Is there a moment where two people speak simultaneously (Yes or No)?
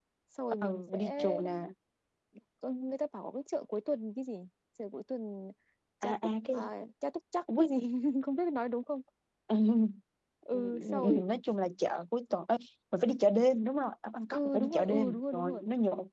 Yes